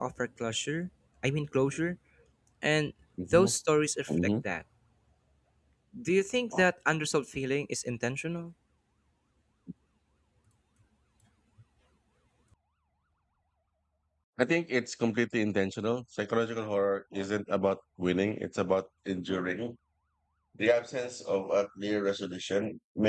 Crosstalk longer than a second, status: none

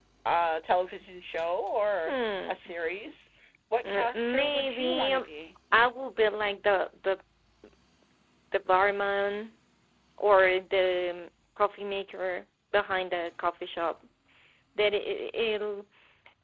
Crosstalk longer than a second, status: present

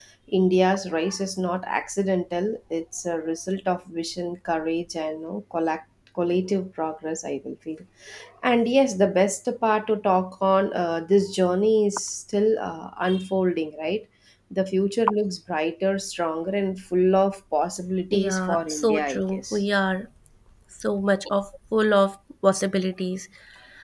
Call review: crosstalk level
present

